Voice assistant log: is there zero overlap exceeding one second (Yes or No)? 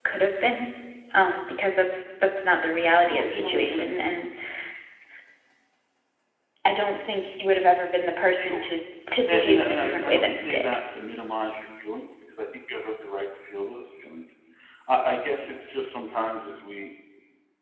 No